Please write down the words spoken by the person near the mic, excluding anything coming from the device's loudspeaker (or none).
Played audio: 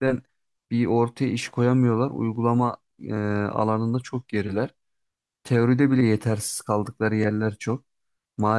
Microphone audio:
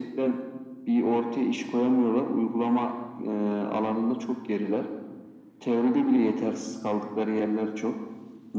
none